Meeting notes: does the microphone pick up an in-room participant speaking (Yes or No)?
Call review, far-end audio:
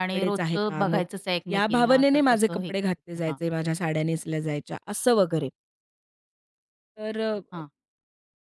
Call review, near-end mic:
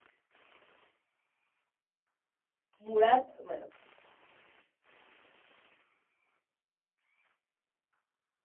Yes